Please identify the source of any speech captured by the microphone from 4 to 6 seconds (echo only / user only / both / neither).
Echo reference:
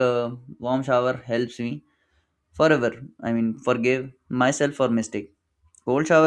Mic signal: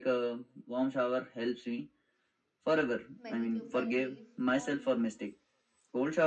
both